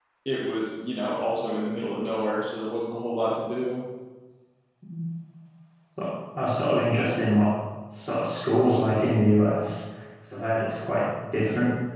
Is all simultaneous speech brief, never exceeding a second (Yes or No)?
Yes